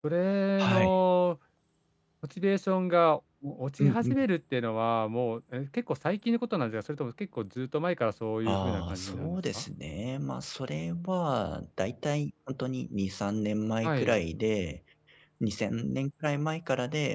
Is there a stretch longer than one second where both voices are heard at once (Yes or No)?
Yes